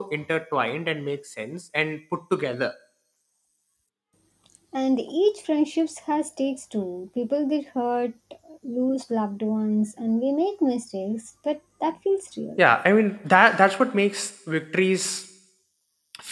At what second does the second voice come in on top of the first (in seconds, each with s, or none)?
none